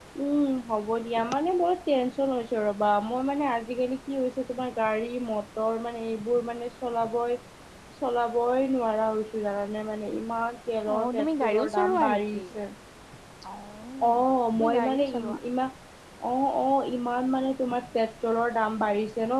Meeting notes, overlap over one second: present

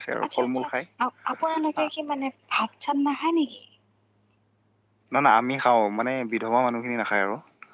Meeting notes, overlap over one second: none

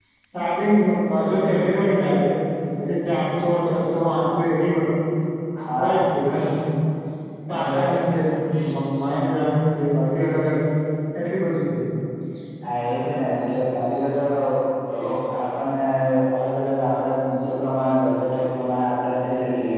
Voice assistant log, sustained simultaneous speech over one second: none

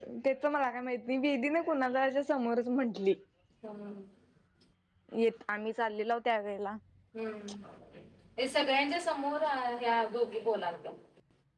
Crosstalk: none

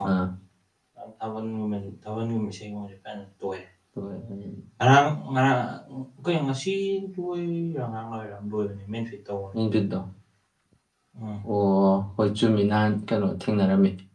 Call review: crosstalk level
none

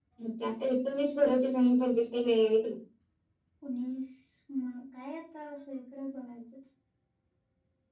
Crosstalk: none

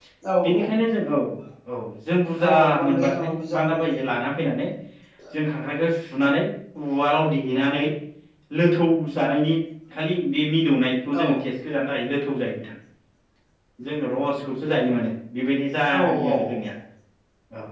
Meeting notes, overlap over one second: present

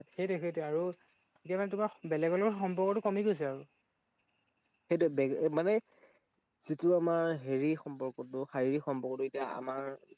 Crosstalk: none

